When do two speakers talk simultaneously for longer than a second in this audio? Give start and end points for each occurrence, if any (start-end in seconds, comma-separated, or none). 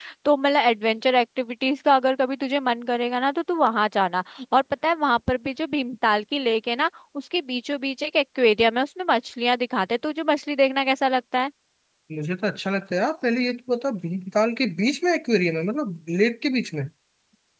none